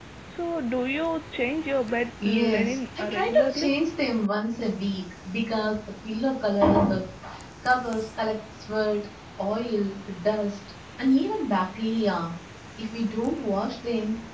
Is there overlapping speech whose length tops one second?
Yes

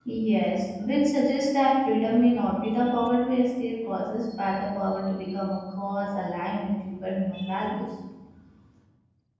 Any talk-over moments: No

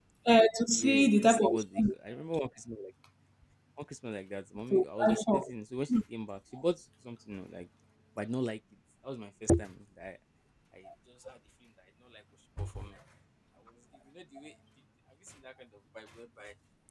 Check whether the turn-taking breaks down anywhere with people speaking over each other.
Yes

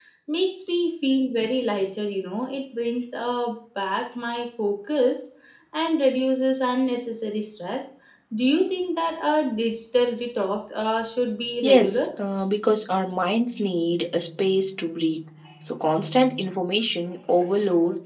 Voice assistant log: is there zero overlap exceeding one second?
Yes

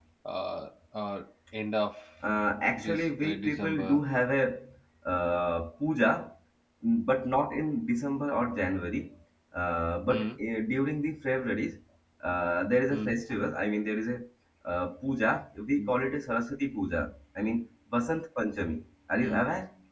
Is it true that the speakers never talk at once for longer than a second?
No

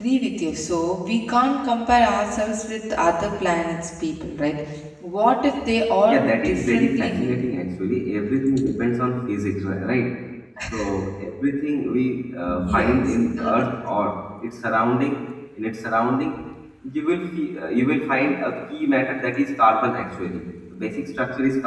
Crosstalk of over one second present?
Yes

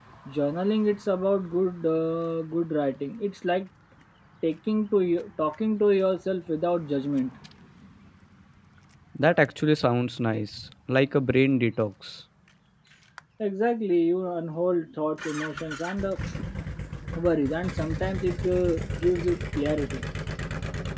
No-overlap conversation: Yes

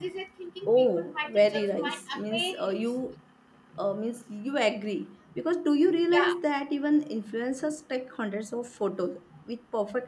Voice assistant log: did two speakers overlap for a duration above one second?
Yes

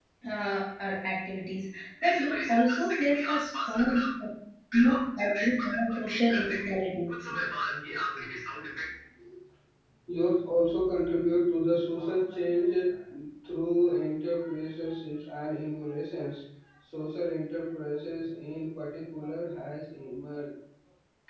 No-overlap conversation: No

